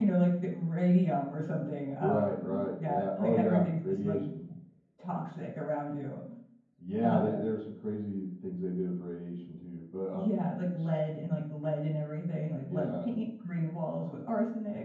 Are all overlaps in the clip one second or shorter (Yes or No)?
No